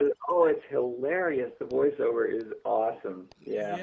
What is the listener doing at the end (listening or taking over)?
taking over